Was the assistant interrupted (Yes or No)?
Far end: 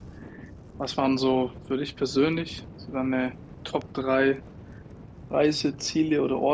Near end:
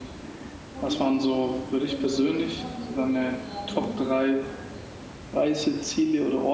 Yes